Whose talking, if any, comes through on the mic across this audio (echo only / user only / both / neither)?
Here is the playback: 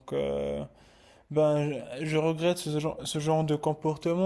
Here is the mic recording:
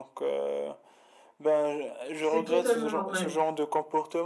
both